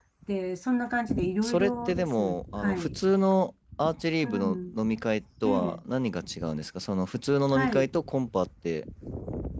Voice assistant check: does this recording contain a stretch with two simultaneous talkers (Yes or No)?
Yes